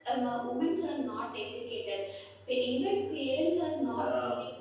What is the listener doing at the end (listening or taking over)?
listening